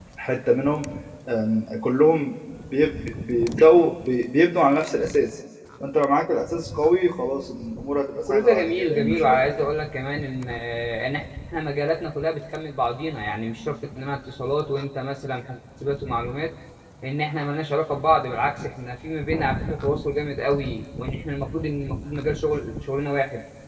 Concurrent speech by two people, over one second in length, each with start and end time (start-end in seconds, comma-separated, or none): 8.3-9.5